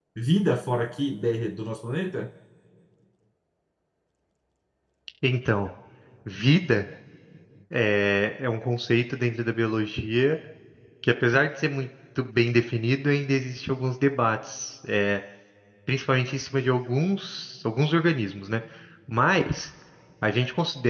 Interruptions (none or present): none